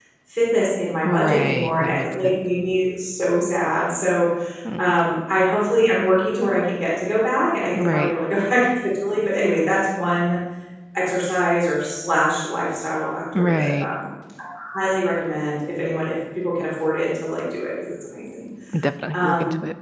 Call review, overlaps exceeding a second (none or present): present